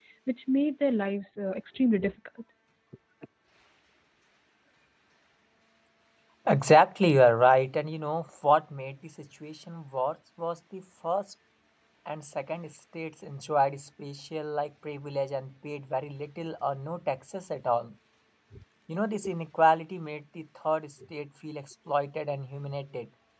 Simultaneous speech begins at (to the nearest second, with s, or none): none